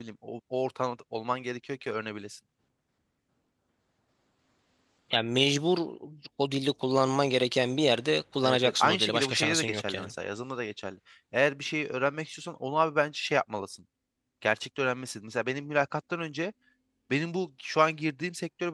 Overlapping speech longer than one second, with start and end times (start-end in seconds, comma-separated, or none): 8.4-10.1